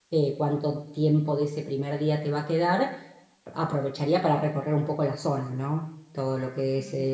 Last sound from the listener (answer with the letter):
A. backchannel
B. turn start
A